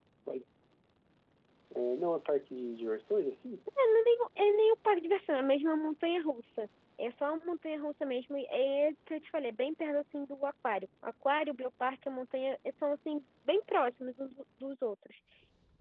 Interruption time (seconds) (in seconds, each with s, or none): none